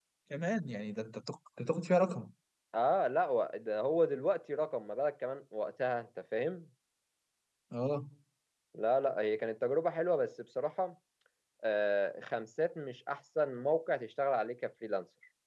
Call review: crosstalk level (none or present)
none